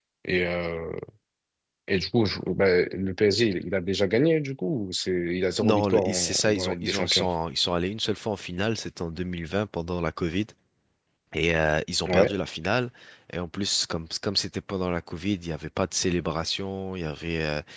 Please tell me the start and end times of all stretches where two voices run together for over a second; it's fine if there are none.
5.6-7.3

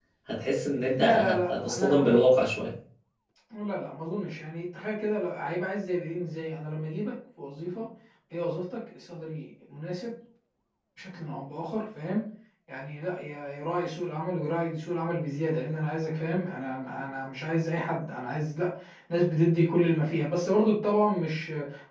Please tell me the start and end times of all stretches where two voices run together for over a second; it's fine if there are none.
1.0-2.2

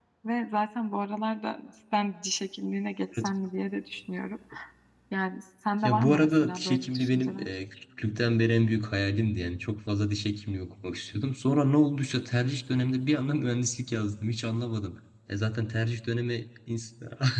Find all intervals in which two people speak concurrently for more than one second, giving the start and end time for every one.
5.8-7.5

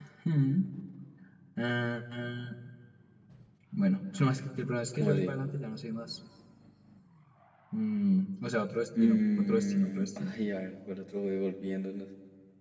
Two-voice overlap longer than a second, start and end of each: 9.0-10.3

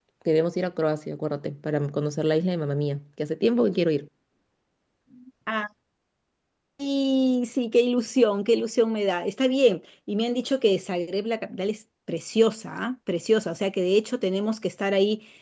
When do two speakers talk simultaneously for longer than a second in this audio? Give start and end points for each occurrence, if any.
none

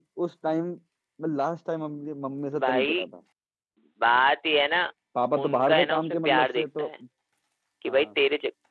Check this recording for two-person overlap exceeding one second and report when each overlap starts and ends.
5.4-6.9

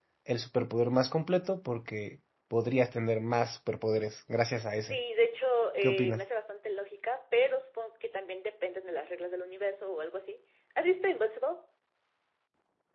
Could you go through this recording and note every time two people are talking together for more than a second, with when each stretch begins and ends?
none

